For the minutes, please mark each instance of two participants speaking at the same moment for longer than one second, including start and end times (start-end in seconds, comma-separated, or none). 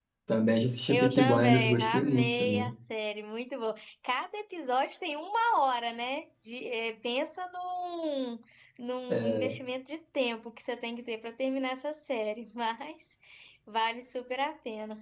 0.9-2.7